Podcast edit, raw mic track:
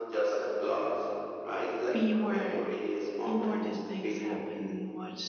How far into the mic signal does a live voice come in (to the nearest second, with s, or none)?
2 s